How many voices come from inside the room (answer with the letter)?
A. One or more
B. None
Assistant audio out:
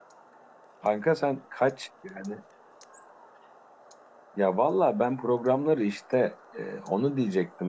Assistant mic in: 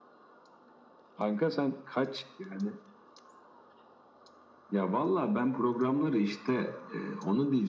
B